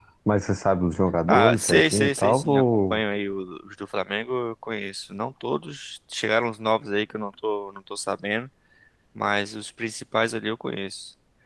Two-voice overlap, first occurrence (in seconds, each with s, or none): 1.3 s